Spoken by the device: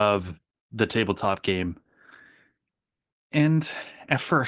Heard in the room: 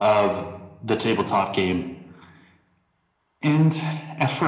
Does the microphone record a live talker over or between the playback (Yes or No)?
No